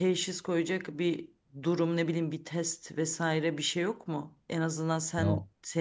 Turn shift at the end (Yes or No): No